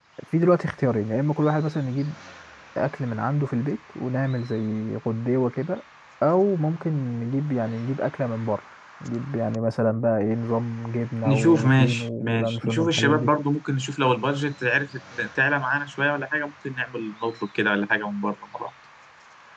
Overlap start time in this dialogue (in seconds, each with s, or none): 11.2 s